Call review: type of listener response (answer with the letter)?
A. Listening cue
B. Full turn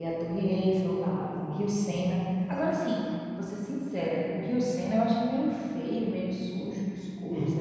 B